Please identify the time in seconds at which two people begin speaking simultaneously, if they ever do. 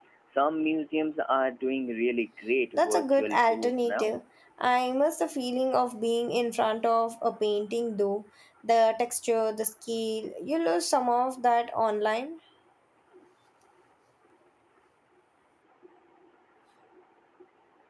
2.7 s

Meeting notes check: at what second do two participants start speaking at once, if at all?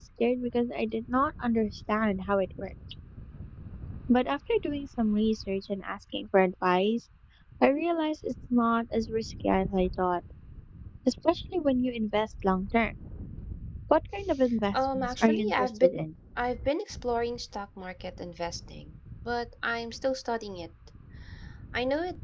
14.7 s

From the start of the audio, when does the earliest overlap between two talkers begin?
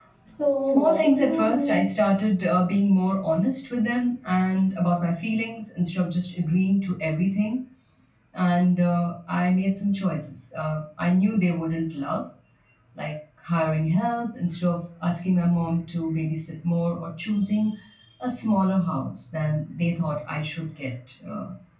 0.6 s

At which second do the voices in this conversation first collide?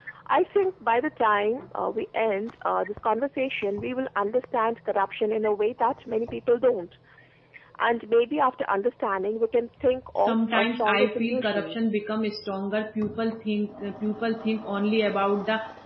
10.2 s

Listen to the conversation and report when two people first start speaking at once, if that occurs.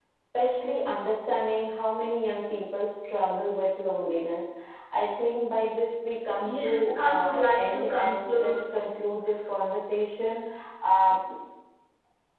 6.4 s

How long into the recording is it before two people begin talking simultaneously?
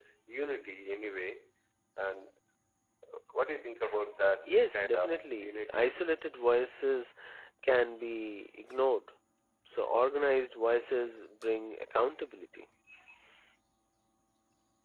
4.5 s

